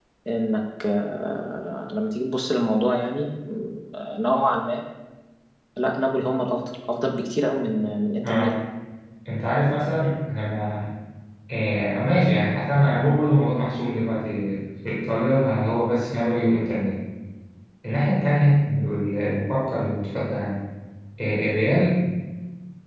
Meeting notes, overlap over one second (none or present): none